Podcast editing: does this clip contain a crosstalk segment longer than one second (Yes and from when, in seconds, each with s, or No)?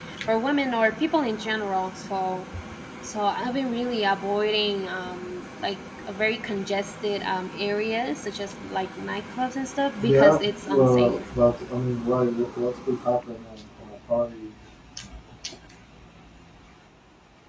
Yes, from 10.0 s